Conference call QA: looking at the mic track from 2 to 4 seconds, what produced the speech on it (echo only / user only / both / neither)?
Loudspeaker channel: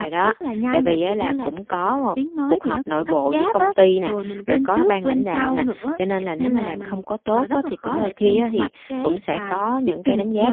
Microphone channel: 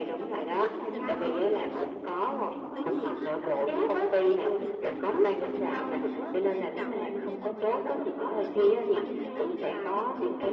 both